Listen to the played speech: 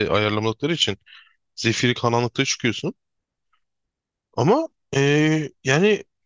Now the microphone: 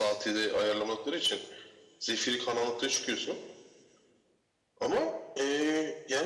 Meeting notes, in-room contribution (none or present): none